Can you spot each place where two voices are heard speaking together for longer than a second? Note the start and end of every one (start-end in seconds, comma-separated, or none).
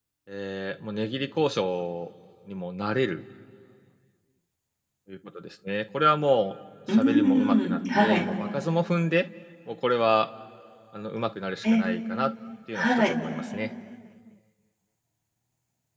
6.9-8.2